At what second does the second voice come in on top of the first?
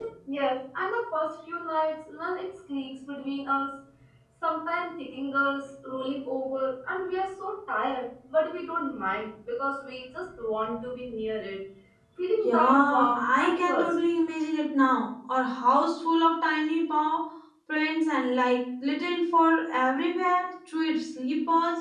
12.4 s

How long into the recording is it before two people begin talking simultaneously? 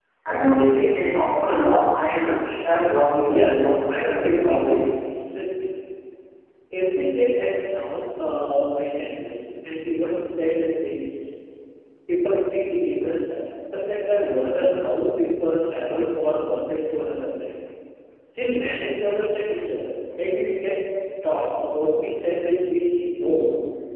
3.2 s

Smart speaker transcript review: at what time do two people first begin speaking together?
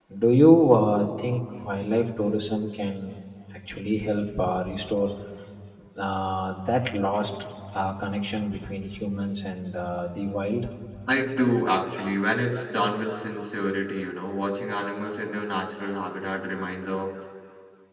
none

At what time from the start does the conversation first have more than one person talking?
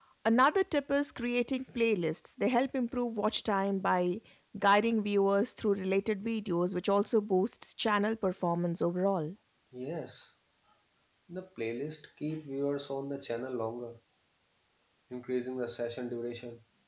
none

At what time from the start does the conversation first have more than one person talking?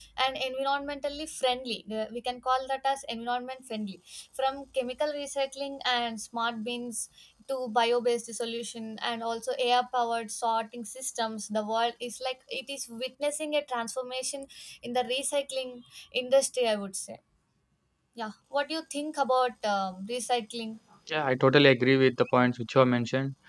none

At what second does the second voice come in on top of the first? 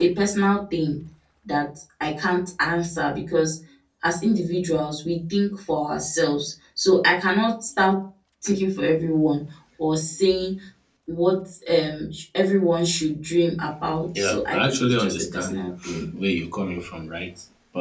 14.2 s

